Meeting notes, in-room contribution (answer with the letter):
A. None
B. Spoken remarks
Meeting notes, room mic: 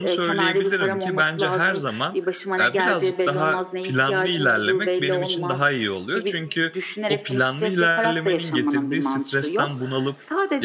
B